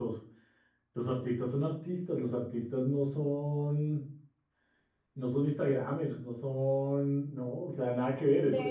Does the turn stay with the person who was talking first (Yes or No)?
No